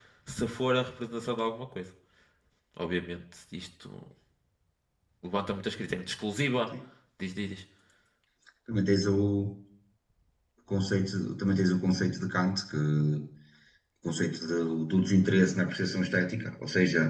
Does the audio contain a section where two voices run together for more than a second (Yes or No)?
No